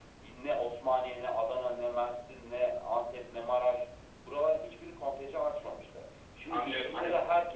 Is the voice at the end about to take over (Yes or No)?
Yes